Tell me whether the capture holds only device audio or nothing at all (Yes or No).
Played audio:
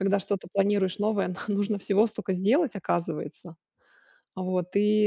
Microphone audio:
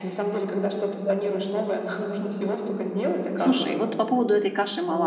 No